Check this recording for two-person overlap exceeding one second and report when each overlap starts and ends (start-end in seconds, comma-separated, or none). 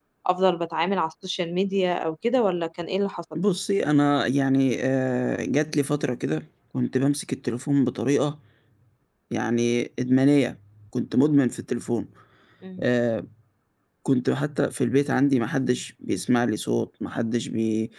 none